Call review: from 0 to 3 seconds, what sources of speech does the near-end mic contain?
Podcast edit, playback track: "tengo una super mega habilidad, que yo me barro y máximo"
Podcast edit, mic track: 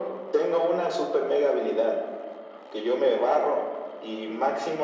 echo only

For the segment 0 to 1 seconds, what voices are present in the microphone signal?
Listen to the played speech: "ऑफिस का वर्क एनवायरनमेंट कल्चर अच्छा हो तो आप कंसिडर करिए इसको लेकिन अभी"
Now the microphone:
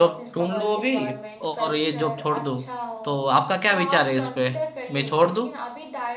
both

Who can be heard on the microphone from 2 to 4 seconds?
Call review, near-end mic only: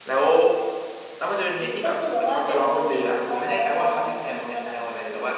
echo only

